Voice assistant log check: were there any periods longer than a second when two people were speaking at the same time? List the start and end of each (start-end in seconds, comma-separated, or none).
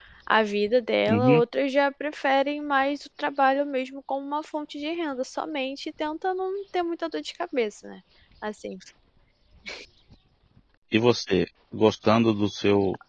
none